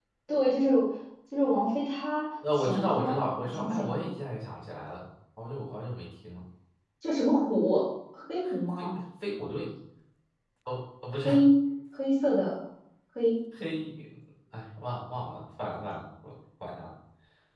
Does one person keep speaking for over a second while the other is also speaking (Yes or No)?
Yes